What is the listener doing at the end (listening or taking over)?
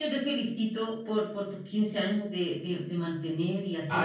taking over